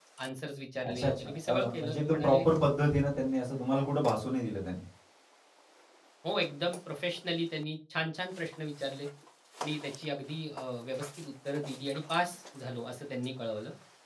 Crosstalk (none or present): present